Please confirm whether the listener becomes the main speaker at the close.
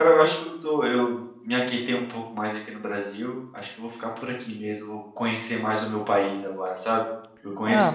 No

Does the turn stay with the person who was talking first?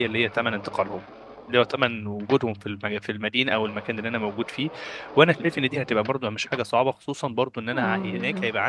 Yes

